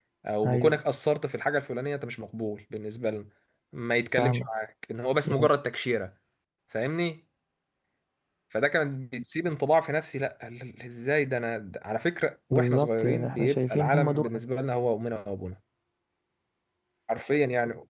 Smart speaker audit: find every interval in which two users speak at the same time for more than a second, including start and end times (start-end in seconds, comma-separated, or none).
12.5-14.3